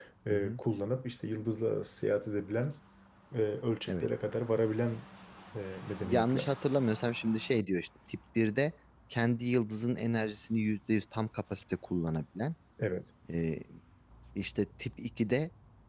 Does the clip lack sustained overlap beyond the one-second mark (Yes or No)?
Yes